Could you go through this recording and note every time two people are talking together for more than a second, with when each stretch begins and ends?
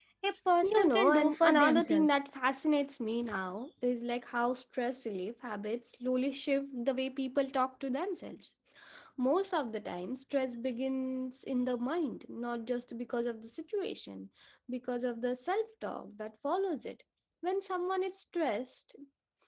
0.6-2.2

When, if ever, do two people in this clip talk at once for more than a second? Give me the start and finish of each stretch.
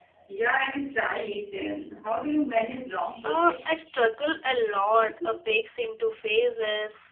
none

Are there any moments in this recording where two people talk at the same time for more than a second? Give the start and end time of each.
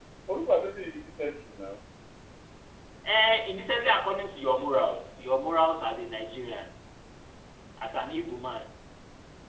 none

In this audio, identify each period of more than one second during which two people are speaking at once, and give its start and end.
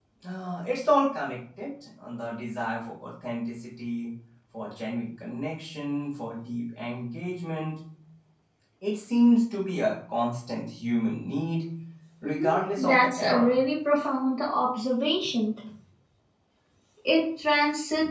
12.2-13.5

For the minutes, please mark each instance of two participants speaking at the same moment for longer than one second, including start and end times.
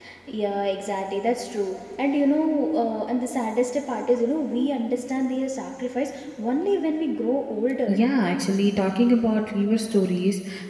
none

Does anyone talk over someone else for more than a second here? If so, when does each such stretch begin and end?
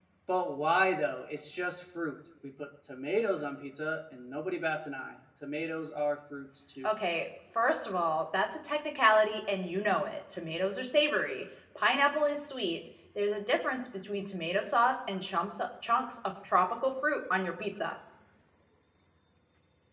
none

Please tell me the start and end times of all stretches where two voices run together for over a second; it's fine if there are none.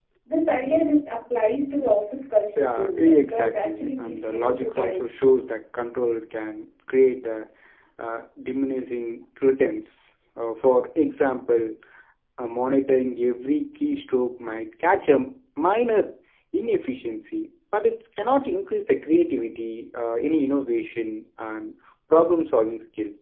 2.6-5.0

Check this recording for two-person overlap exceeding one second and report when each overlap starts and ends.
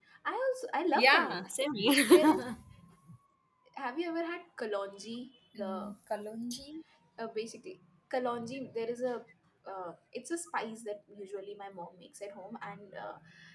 none

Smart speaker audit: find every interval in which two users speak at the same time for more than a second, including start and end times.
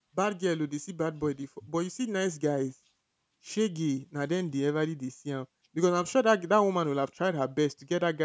none

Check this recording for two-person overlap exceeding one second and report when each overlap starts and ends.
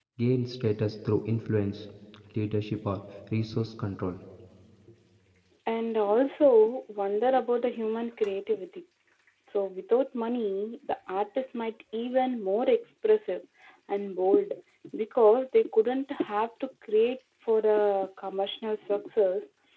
none

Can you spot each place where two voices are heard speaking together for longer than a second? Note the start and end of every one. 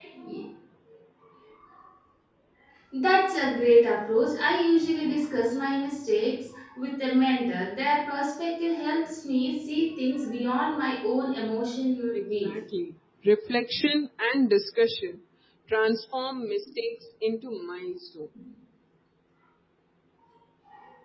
none

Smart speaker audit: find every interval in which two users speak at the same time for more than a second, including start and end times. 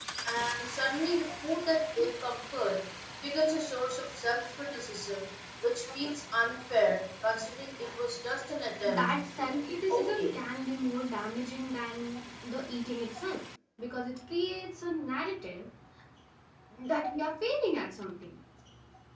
8.8-10.4

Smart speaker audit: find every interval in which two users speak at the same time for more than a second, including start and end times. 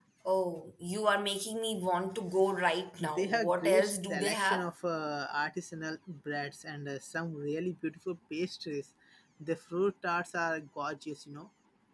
3.0-4.6

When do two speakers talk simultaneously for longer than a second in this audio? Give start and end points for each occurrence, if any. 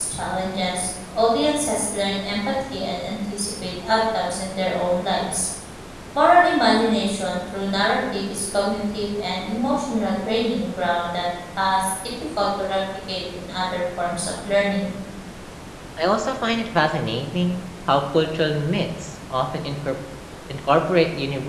none

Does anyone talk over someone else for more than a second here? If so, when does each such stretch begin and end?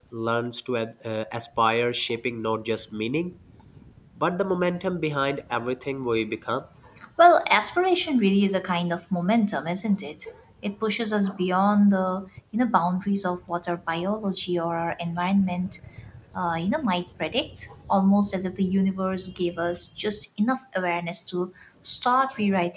none

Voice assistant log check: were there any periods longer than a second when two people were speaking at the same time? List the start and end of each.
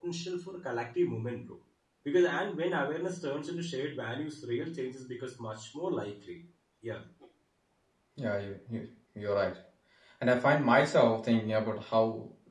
none

